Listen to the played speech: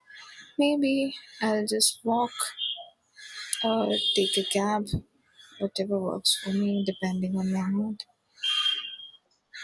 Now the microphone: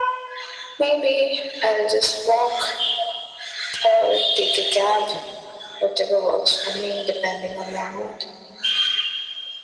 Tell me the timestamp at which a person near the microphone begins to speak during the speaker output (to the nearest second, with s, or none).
none